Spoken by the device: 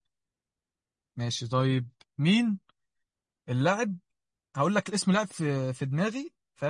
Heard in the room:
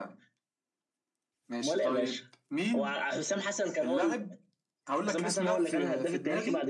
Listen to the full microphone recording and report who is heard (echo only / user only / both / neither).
both